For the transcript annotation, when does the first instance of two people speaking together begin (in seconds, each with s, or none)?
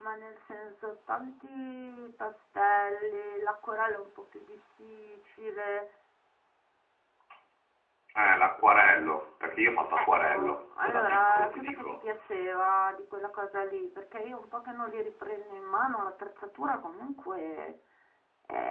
9.9 s